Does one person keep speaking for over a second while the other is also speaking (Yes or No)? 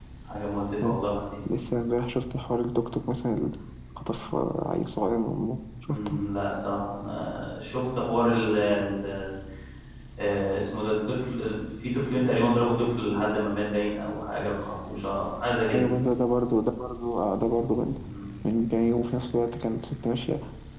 No